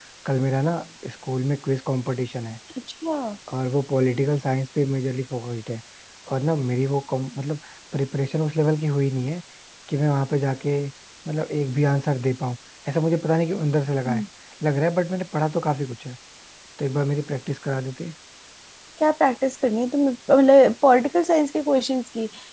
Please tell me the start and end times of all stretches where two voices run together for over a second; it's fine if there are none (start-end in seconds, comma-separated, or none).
none